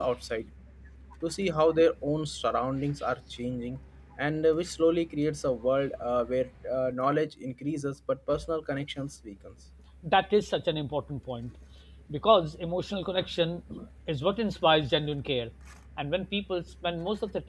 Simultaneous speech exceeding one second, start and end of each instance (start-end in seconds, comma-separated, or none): none